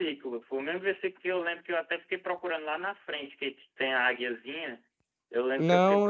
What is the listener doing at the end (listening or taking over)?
taking over